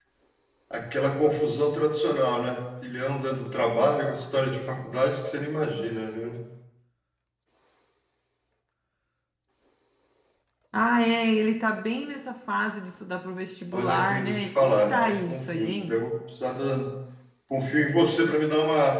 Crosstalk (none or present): present